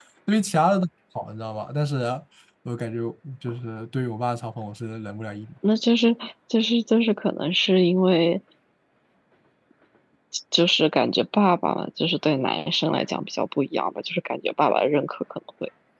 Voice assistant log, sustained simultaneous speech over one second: none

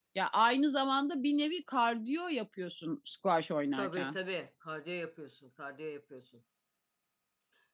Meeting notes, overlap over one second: none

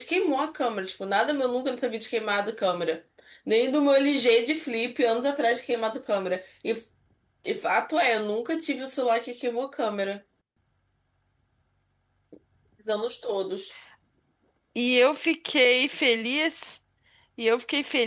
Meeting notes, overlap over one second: none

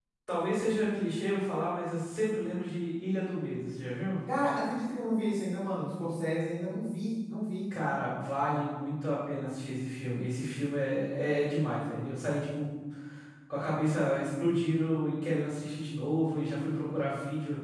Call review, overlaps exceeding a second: none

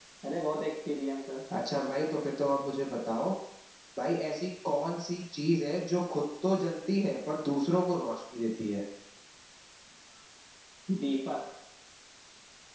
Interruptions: none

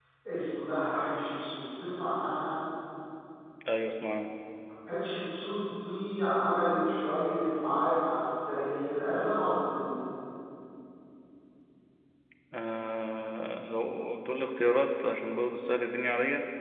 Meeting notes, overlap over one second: none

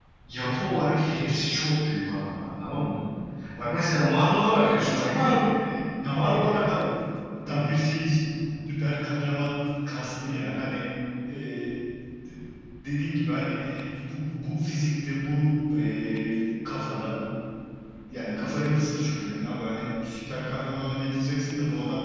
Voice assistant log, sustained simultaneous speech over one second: none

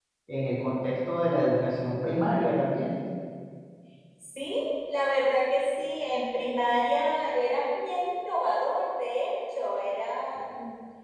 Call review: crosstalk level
none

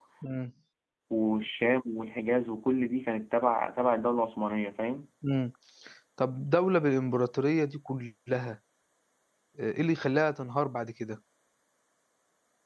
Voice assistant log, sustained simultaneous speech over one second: none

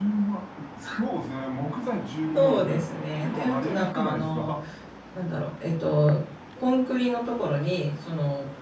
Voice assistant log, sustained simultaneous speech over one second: present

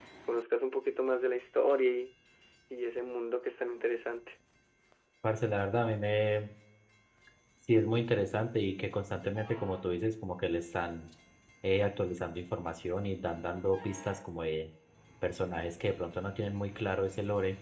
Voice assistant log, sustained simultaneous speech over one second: none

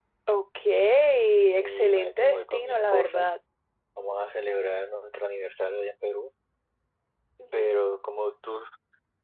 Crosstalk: present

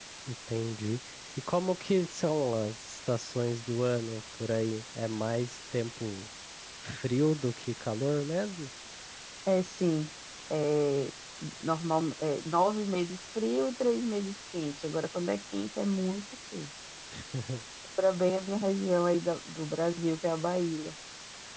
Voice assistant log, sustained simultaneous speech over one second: none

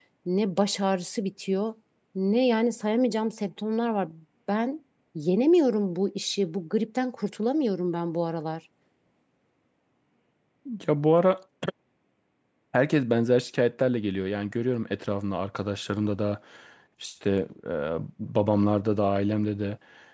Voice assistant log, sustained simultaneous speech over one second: none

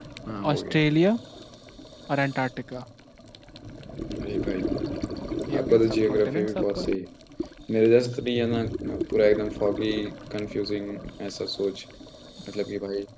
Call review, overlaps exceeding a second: present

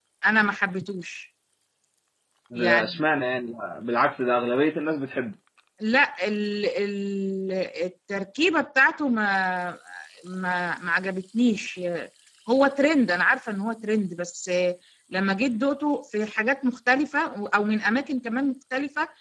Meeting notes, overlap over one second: none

